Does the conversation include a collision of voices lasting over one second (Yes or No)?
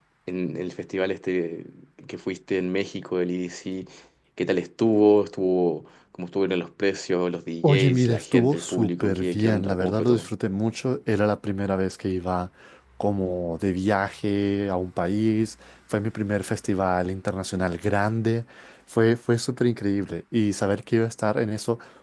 Yes